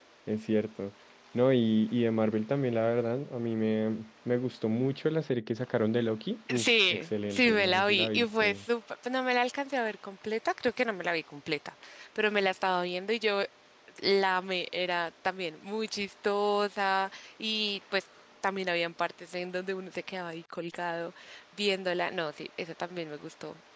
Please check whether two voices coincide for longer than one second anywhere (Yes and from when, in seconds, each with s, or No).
Yes, from 6.5 s